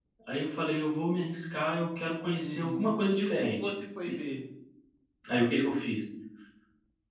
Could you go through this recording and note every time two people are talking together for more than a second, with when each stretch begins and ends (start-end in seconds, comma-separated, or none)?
2.4-3.7